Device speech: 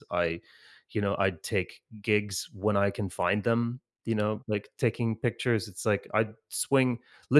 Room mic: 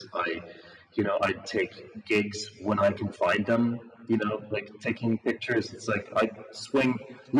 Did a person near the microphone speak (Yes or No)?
No